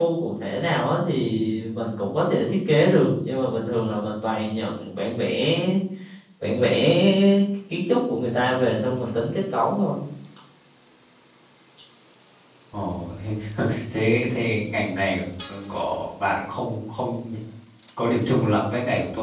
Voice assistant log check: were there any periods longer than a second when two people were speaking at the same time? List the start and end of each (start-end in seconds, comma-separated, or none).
none